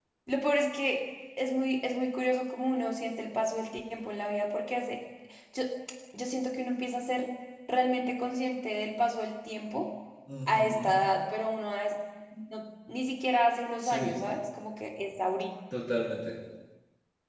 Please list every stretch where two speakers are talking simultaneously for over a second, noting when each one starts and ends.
none

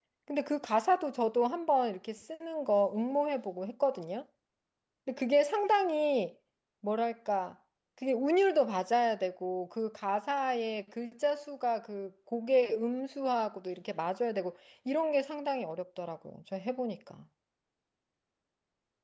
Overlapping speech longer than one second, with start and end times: none

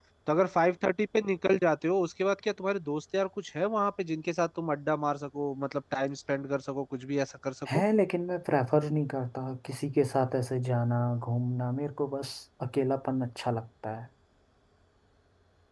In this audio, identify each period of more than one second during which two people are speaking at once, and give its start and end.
none

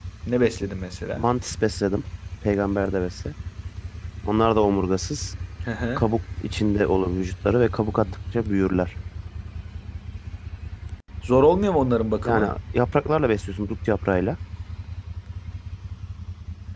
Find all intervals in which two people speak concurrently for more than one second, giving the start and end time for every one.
none

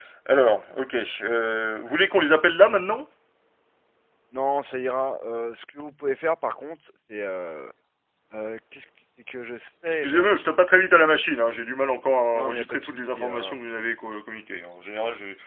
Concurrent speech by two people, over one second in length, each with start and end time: 12.3-13.6

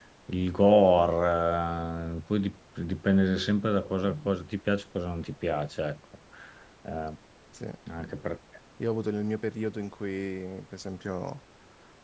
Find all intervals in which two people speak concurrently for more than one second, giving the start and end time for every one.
none

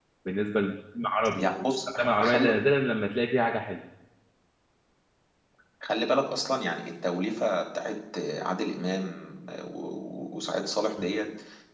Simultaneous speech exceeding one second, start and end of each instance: 1.3-2.6

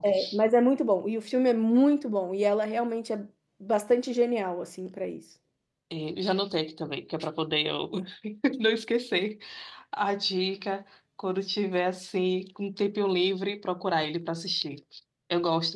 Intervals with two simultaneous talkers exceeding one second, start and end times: none

